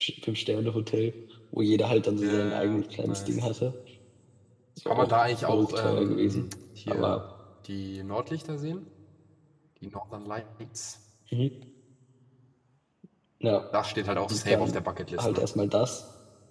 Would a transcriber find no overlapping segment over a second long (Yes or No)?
No